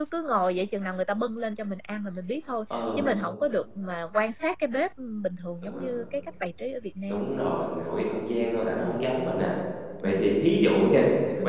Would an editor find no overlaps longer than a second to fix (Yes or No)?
Yes